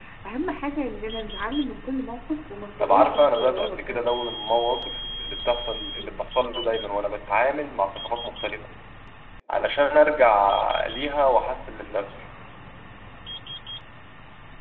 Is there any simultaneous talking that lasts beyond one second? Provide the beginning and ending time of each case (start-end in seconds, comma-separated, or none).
2.8-4.1